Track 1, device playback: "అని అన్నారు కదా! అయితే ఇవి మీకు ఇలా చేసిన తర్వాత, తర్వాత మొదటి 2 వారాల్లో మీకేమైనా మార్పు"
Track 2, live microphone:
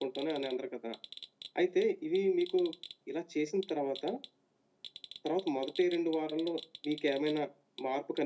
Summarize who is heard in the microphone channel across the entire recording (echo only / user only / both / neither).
echo only